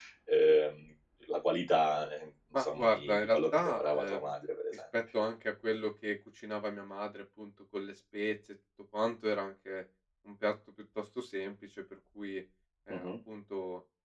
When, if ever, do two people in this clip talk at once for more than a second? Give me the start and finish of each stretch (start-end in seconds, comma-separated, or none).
2.6-4.3